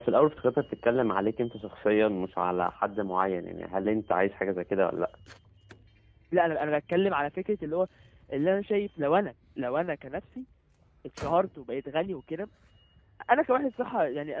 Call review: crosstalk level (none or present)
none